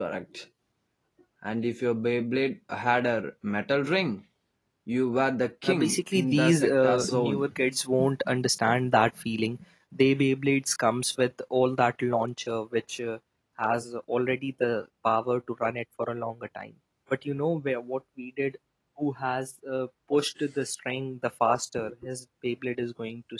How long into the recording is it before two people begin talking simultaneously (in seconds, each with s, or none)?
5.7 s